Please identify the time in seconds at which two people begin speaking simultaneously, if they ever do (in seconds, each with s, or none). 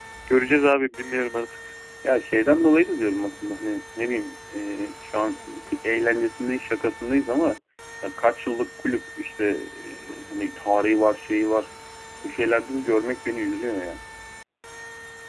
none